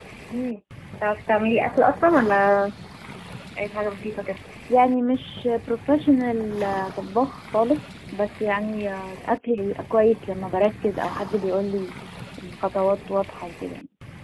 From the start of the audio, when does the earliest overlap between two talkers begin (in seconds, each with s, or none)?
none